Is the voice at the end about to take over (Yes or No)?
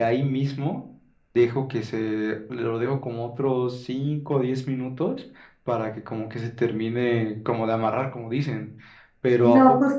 Yes